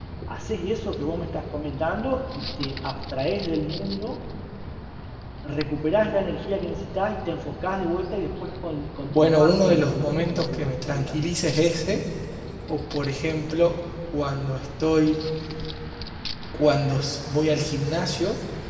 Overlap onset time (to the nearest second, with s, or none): 9 s